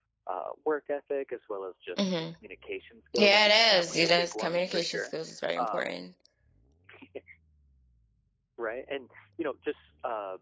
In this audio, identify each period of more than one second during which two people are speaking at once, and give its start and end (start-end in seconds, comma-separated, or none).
3.1-5.1